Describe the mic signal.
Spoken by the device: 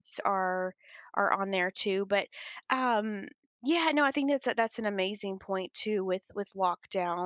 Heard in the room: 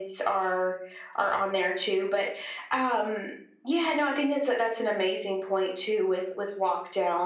echo only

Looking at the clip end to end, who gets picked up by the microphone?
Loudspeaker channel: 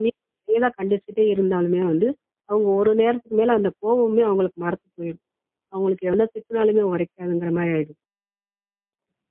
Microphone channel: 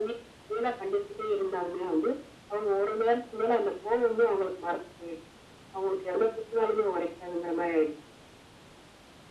echo only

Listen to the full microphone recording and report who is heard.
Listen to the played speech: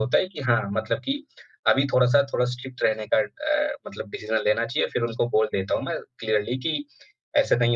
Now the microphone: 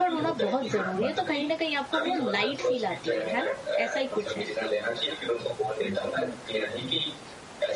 both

